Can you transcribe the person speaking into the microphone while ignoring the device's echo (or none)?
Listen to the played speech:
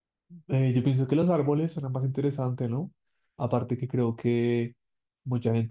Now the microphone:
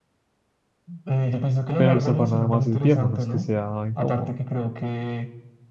Pero el sofá nada más es viejo, no es que sea incómodo.